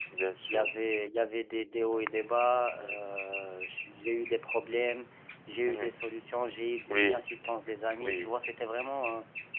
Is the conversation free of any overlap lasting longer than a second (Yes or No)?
Yes